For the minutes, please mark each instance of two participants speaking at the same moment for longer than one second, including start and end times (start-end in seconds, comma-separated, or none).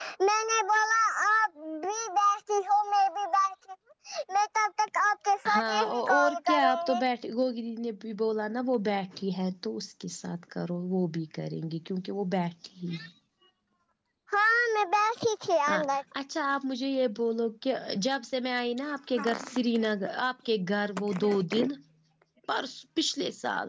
5.5-7.0